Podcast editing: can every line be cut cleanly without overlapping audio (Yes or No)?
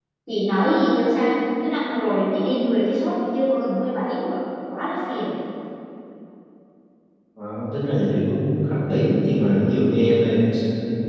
Yes